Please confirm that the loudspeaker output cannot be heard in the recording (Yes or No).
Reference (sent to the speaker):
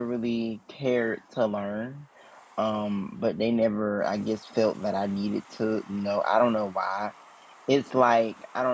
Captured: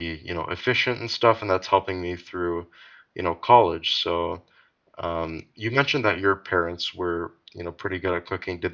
Yes